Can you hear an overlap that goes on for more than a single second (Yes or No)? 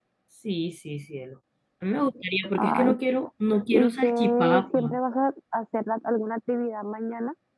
Yes